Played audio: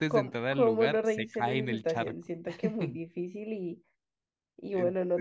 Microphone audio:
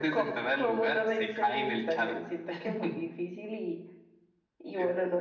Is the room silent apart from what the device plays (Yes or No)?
Yes